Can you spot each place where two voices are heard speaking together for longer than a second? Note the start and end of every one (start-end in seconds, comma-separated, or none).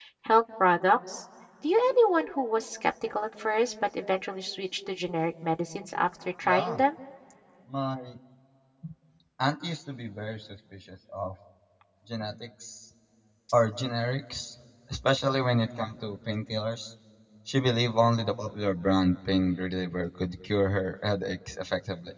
none